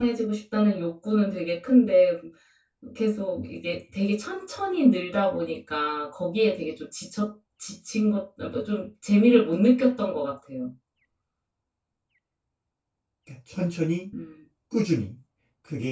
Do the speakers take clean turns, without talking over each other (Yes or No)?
Yes